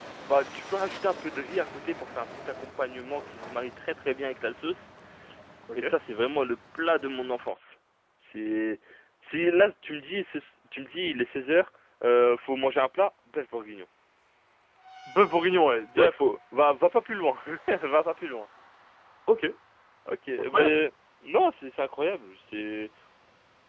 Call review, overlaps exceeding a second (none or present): none